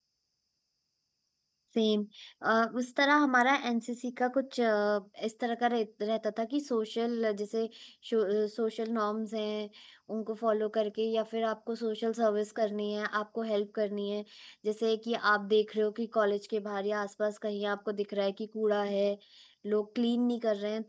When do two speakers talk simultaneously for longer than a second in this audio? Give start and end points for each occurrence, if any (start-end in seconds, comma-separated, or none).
none